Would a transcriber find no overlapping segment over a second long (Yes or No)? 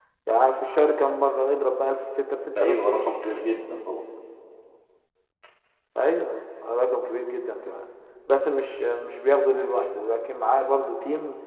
Yes